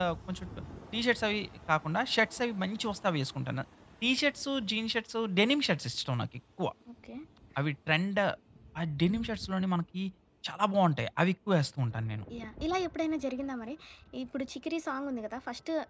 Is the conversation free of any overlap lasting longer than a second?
Yes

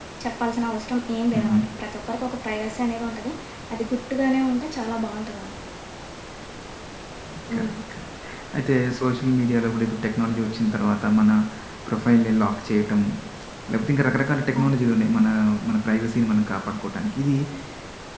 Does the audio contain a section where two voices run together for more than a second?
No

